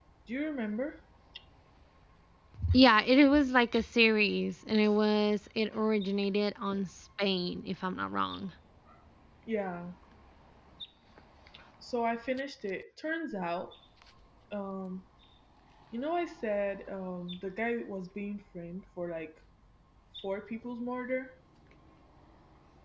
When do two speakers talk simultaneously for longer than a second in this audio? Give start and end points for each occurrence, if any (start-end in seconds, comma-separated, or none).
none